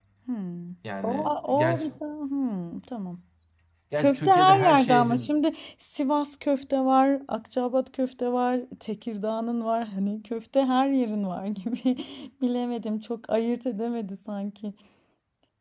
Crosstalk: present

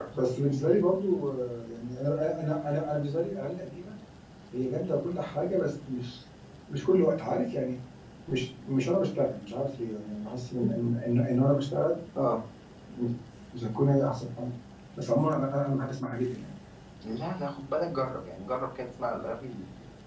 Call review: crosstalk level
none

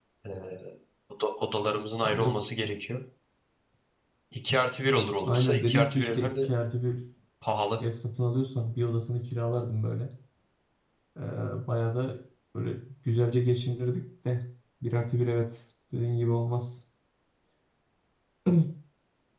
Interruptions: present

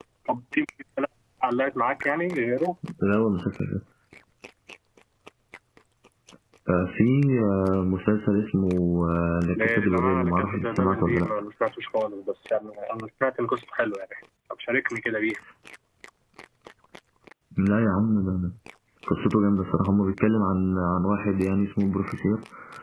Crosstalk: present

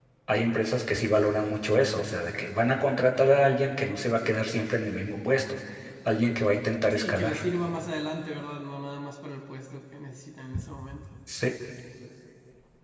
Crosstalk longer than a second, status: none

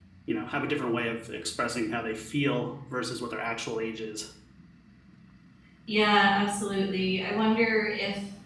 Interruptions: none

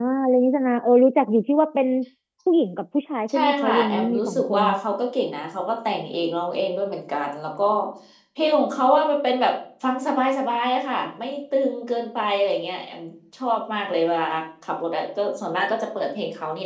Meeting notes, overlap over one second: present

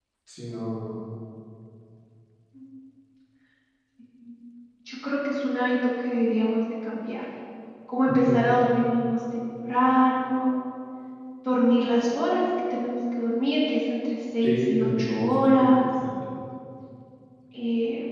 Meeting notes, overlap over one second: present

